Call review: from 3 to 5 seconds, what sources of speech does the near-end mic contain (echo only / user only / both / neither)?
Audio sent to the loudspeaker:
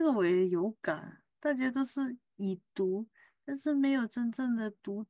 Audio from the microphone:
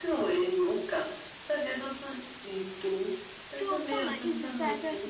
both